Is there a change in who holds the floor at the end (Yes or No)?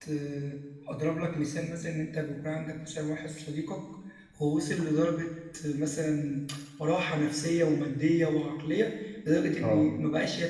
No